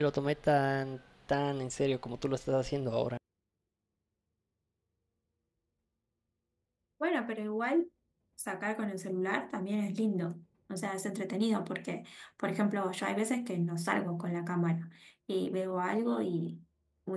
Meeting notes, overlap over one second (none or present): none